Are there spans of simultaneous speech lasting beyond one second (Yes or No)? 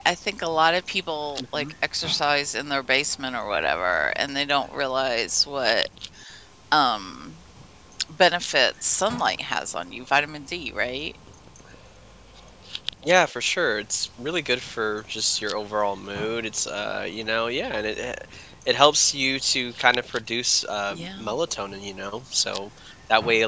No